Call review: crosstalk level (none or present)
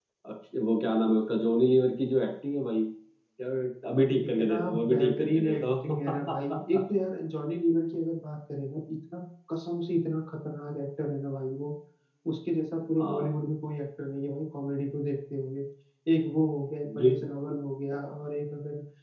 present